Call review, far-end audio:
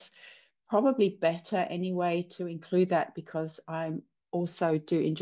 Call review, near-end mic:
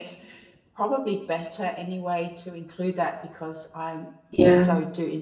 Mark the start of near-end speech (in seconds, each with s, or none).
4.3 s